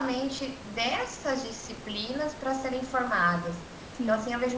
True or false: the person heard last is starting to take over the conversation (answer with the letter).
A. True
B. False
B